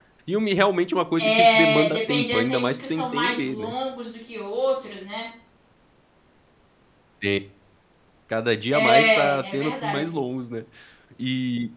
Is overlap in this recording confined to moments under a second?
No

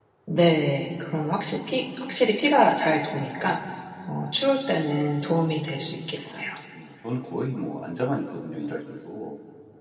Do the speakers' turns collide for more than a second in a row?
No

